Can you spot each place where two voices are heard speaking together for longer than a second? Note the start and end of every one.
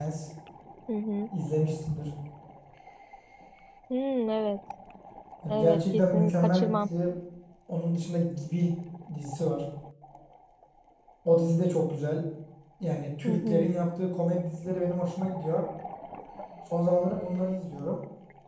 5.5-6.9

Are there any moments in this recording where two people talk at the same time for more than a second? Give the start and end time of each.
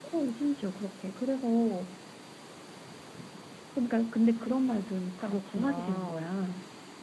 4.3-6.3

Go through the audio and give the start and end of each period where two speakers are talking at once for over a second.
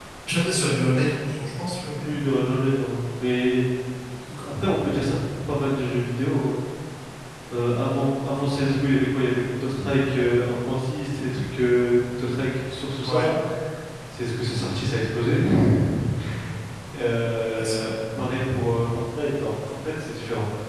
none

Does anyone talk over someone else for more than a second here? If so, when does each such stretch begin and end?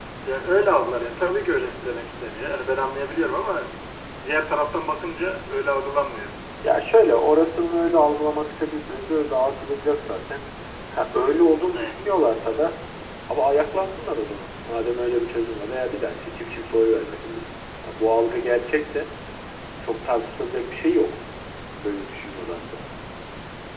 none

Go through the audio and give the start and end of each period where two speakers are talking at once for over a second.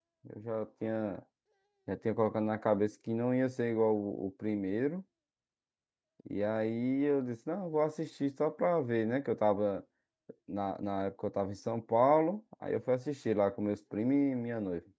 none

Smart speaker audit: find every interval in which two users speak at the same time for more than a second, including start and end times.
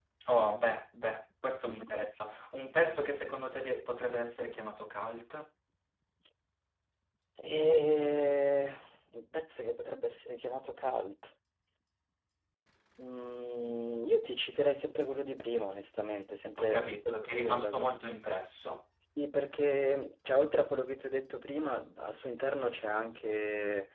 16.6-17.9

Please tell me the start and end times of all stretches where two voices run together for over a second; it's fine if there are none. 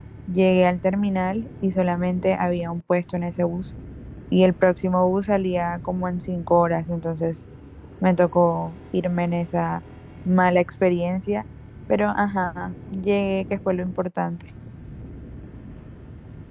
none

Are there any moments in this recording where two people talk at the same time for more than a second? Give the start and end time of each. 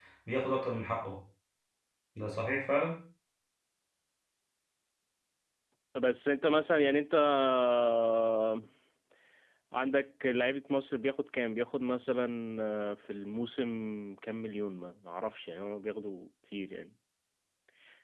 none

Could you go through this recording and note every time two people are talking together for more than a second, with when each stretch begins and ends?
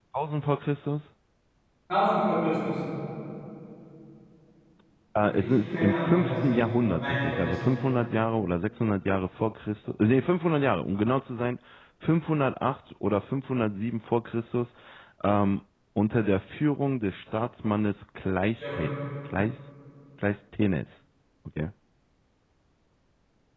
5.2-7.7

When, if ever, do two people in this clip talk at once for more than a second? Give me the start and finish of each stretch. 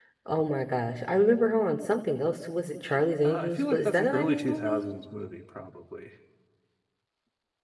3.2-4.8

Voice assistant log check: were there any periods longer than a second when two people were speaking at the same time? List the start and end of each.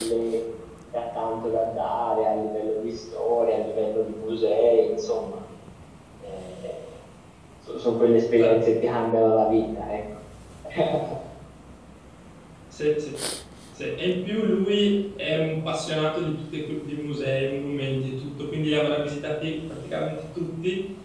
none

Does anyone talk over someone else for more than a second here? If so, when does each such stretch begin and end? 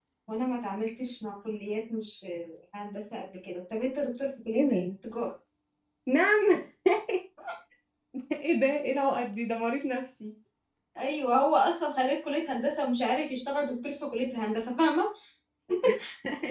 none

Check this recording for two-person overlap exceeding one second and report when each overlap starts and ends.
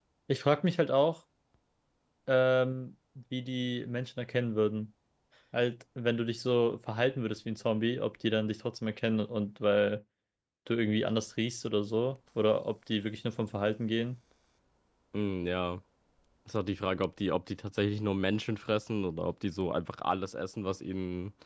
none

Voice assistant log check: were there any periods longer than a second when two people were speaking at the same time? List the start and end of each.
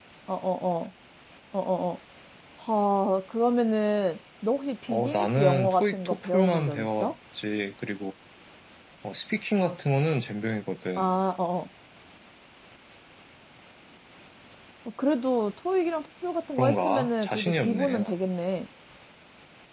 4.9-7.1, 16.6-18.1

